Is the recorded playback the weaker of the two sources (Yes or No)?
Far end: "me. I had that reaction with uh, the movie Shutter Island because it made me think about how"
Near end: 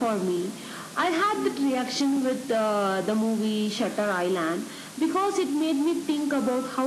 No